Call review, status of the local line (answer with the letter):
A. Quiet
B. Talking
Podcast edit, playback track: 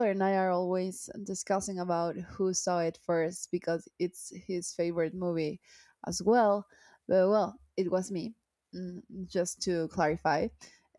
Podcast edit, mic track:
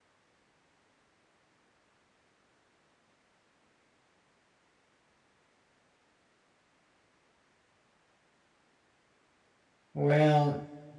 B